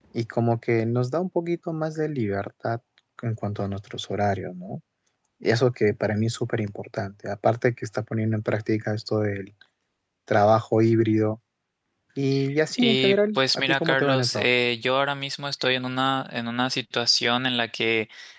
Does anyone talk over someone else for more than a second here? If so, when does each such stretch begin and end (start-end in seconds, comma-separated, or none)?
12.8-14.4